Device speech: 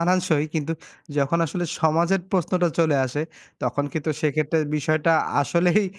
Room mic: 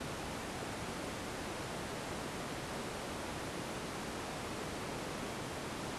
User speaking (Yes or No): No